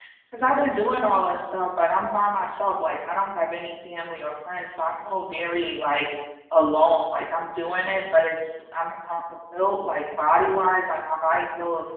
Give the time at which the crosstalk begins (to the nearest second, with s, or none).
none